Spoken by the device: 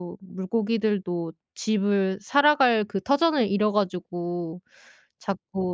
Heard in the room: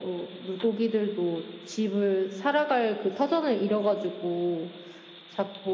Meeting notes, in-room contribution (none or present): none